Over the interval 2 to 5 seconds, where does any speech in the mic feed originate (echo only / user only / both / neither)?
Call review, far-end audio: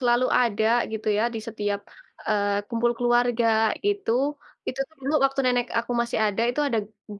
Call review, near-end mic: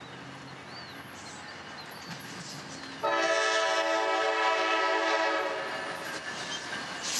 neither